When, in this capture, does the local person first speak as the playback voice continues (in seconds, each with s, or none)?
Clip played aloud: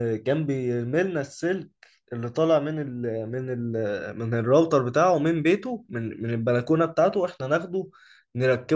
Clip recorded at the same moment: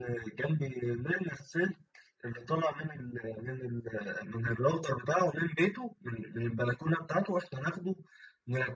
none